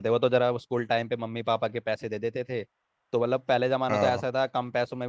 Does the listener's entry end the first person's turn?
No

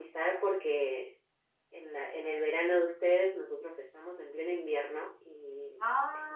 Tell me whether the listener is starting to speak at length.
Yes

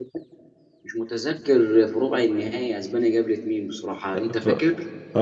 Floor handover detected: Yes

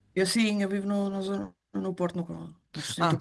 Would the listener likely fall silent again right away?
No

